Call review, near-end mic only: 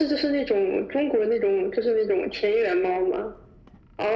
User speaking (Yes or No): No